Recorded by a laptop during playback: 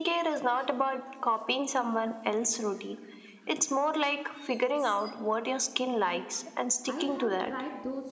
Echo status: present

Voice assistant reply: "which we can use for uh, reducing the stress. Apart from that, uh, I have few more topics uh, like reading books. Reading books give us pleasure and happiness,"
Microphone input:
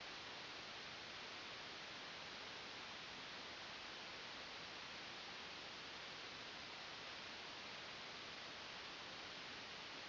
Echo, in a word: none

